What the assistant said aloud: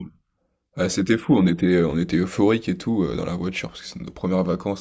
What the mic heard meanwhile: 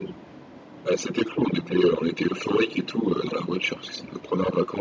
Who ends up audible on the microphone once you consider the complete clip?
echo only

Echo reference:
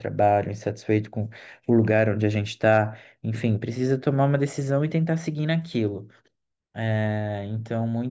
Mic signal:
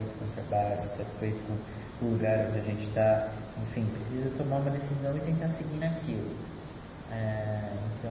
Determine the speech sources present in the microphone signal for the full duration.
echo only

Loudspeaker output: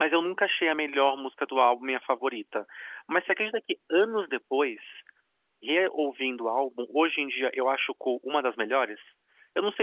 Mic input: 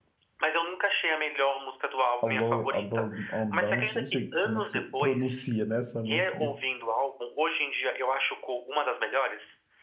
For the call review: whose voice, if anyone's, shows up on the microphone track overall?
both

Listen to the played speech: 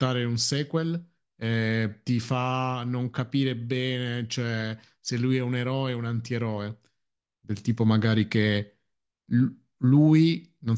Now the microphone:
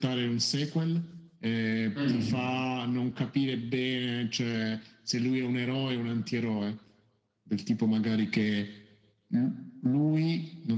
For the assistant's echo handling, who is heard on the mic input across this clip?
both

